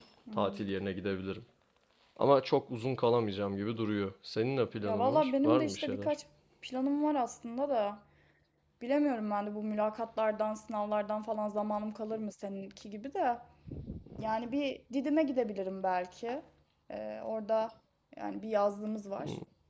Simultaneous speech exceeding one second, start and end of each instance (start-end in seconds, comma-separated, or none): 4.8-6.1